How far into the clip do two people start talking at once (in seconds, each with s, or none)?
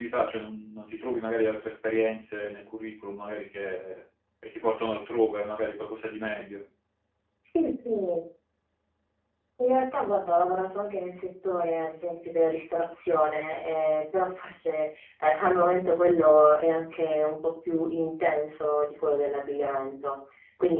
none